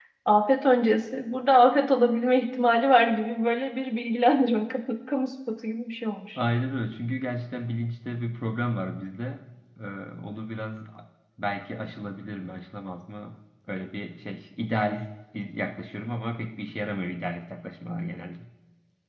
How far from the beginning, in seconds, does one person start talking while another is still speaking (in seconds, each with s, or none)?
none